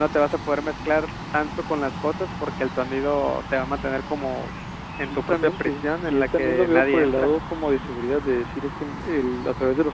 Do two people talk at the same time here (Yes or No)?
Yes